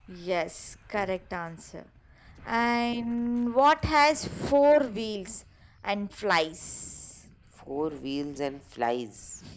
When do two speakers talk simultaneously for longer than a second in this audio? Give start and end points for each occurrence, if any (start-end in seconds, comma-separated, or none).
none